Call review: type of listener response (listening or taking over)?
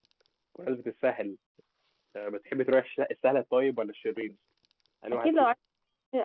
taking over